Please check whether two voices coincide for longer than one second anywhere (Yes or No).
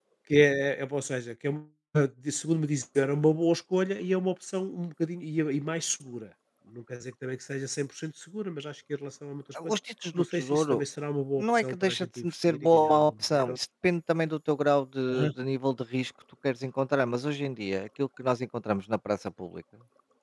Yes